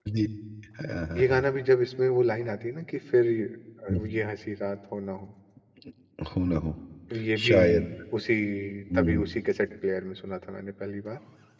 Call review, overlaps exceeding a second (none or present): none